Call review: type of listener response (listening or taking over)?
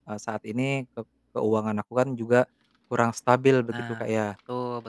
taking over